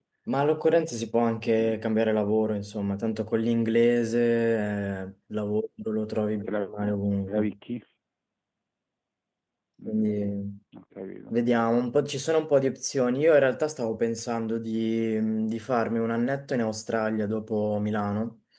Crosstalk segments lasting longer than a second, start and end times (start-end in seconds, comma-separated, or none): none